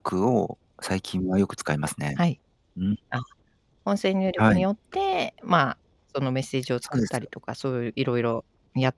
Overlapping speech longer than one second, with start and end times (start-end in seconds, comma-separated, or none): none